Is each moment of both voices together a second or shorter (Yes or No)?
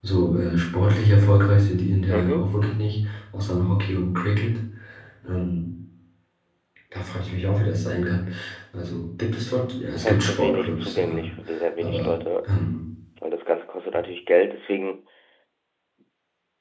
No